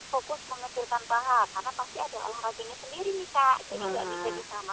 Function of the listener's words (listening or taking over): listening